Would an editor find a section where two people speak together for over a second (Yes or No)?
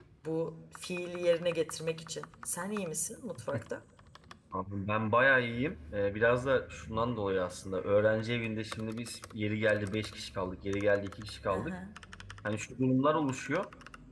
No